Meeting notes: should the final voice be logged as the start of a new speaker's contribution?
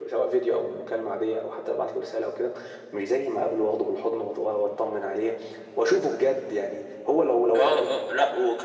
Yes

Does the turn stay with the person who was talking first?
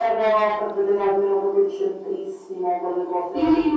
No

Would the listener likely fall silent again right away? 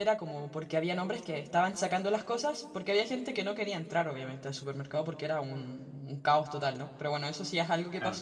Yes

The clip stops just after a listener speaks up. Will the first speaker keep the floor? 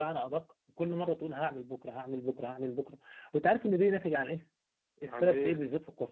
Yes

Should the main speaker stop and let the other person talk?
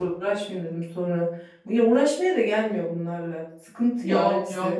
Yes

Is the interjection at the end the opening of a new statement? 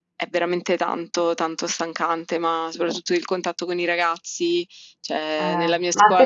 Yes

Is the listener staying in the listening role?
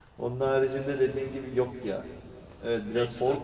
Yes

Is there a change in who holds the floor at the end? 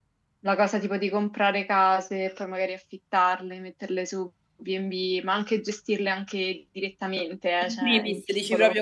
Yes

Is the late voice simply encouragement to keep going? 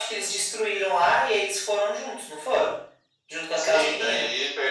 No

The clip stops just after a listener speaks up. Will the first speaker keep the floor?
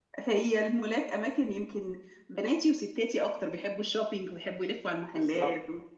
No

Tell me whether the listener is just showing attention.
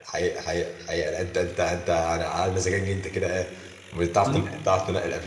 Yes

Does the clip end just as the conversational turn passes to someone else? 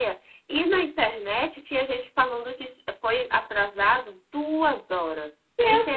Yes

